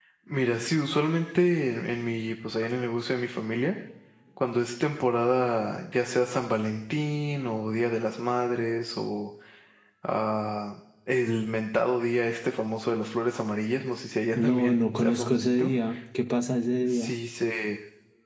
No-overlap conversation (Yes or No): No